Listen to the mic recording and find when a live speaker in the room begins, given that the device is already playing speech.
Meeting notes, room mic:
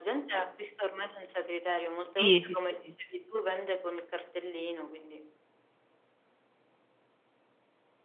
2.2 s

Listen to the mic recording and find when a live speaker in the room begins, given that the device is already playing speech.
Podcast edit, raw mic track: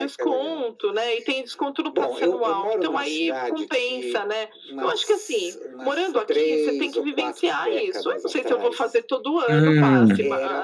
9.5 s

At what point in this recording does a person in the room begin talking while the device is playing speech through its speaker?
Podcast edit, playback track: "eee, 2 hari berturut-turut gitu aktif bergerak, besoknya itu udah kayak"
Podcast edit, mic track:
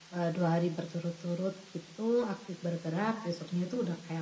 none

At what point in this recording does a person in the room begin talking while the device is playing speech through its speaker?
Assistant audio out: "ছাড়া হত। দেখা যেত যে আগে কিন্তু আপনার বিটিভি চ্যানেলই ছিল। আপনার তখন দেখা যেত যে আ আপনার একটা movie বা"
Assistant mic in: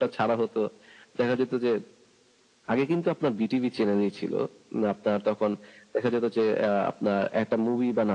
none

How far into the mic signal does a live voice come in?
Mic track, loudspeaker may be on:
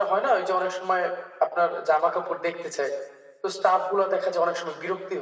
none

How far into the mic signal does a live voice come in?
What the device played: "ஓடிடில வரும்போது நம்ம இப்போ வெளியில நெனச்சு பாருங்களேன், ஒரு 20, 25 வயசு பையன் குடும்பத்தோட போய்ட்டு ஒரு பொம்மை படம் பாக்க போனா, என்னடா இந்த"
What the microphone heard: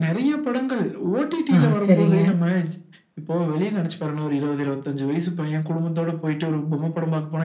1.6 s

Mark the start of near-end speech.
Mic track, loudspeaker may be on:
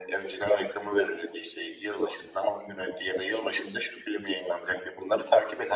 none

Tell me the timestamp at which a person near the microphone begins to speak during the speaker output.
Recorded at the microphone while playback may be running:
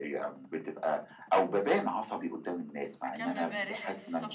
3.1 s

